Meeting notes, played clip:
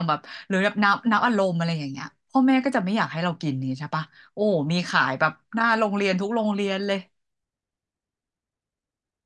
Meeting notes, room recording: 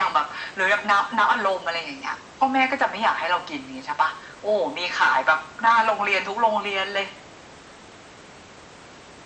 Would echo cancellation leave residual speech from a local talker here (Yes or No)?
No